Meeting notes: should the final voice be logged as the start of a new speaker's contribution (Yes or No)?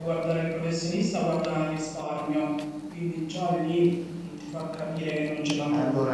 Yes